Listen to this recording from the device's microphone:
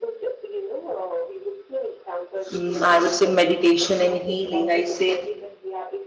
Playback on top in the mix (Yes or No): No